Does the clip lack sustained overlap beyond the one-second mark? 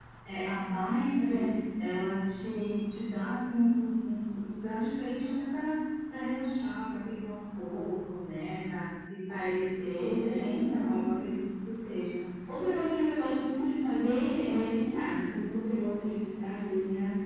No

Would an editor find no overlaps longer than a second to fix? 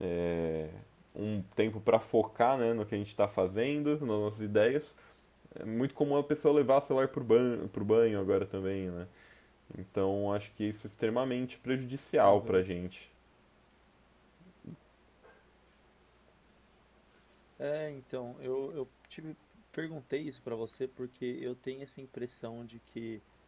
Yes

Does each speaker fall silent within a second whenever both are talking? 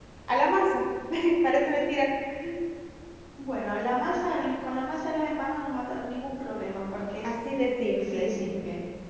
Yes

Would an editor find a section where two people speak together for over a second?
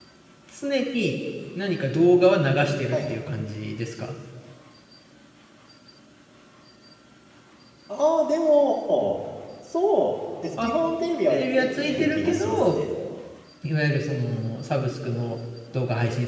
Yes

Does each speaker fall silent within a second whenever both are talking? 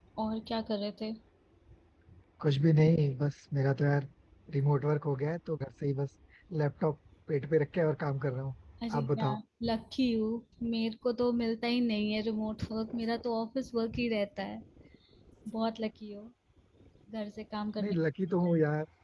Yes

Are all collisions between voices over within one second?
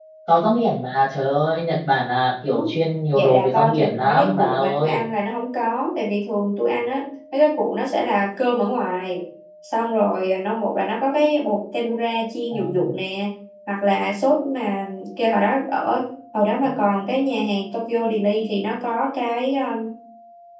No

